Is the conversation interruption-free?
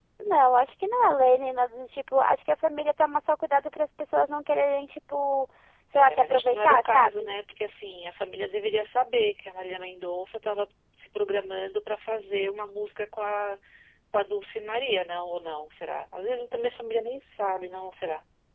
No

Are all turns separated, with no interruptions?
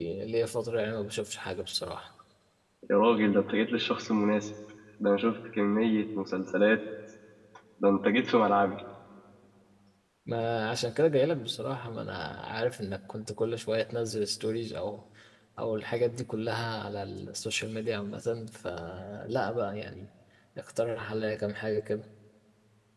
Yes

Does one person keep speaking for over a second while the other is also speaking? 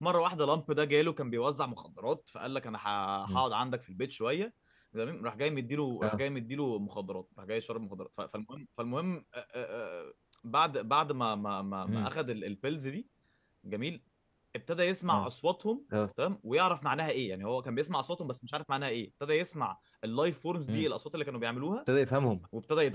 No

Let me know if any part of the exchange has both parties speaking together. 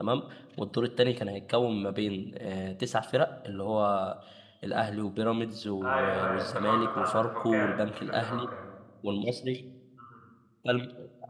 Yes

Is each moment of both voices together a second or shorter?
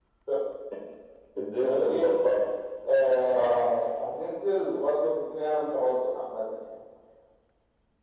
Yes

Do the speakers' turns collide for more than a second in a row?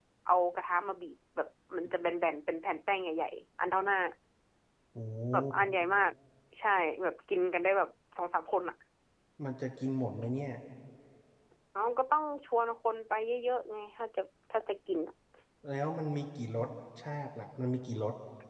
No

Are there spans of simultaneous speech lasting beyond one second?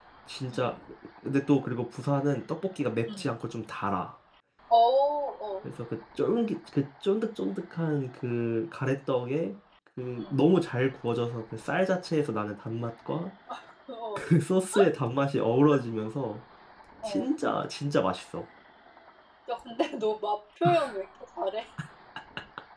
No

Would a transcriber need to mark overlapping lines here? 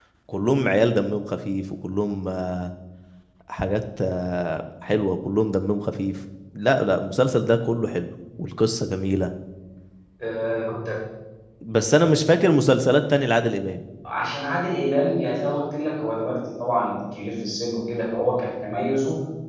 No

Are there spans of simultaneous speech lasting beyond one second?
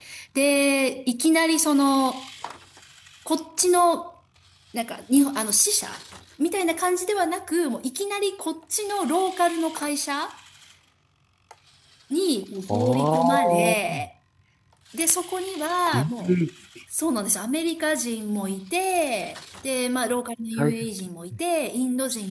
Yes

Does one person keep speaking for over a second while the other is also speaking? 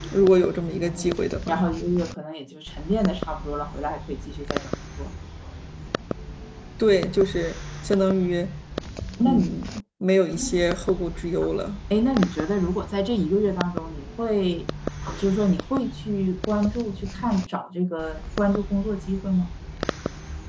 No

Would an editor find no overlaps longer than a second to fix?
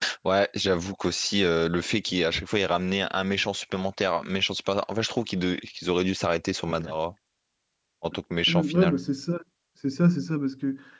Yes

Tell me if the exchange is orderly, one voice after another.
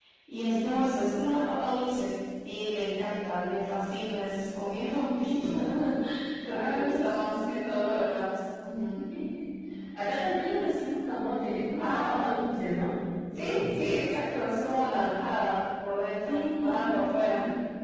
No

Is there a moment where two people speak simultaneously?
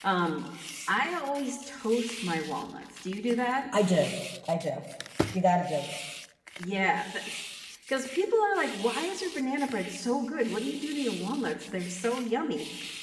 No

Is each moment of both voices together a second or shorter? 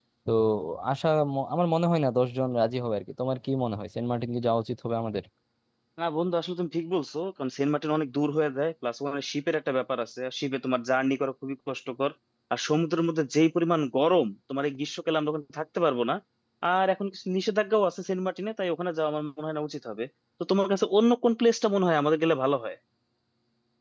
Yes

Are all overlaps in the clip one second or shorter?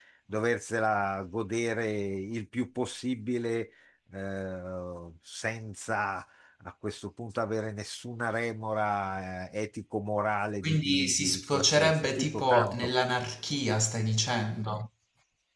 No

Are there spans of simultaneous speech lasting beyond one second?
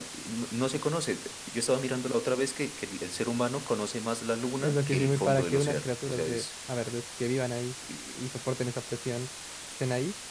Yes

